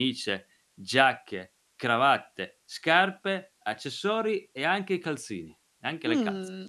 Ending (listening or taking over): taking over